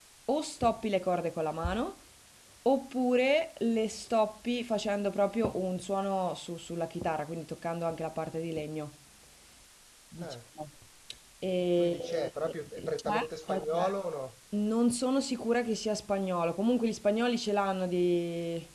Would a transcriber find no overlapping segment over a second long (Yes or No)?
No